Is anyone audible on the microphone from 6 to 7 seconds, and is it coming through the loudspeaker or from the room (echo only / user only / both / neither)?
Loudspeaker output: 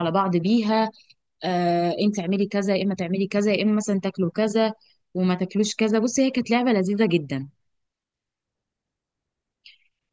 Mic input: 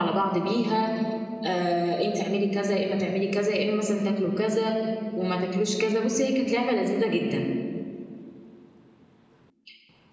echo only